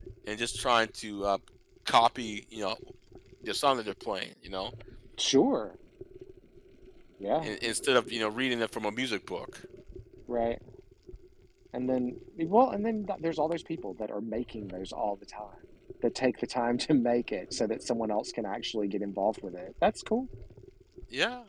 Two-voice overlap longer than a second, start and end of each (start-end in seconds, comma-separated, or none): none